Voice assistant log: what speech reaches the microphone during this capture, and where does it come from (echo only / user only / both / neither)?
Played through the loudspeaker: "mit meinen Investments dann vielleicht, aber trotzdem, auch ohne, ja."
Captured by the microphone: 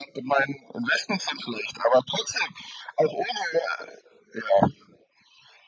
echo only